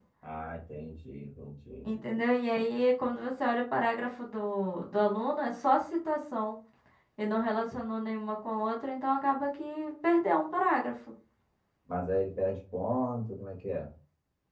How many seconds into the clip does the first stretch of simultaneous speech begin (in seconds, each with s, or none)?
none